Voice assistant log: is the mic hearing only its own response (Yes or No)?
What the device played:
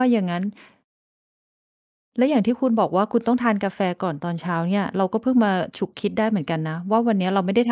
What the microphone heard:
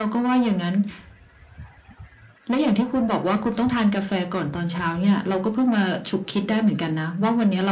Yes